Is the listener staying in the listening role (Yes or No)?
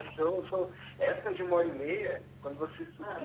Yes